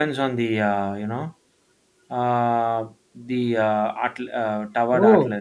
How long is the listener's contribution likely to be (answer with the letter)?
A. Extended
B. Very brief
B